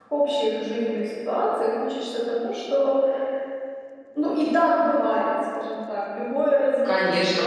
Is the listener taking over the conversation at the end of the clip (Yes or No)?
Yes